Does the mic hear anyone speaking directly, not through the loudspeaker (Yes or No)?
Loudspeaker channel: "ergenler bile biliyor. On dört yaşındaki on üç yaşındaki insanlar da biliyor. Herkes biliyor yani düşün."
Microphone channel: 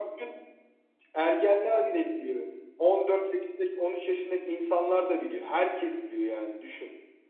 No